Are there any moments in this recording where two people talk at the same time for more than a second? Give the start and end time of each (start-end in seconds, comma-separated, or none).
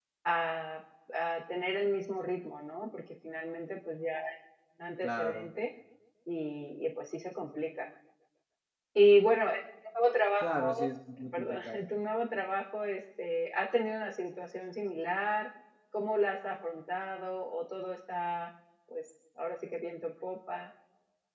none